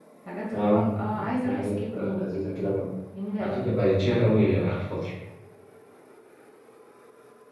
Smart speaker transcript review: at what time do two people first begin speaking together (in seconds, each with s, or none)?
0.5 s